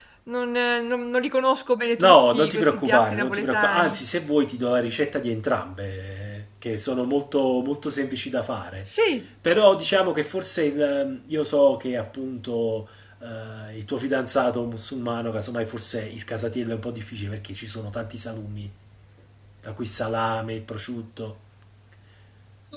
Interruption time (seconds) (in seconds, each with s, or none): 2.0 s